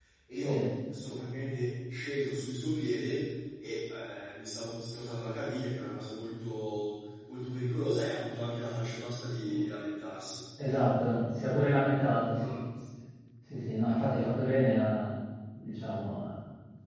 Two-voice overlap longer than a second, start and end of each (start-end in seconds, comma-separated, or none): none